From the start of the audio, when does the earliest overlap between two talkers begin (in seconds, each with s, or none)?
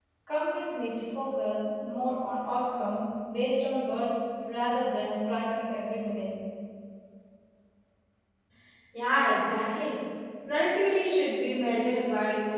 none